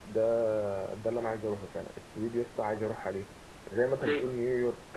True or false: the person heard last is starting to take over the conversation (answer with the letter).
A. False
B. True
A